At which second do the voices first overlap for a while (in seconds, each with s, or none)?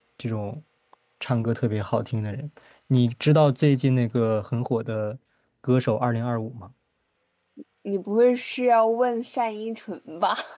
none